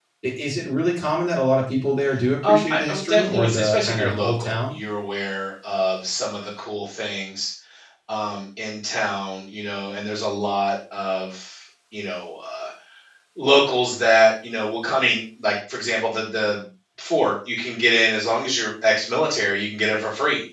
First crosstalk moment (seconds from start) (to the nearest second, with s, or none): 2 s